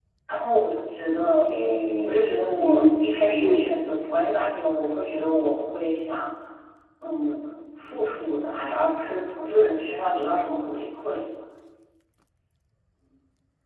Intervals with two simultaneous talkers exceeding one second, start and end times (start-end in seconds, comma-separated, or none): 2.0-3.6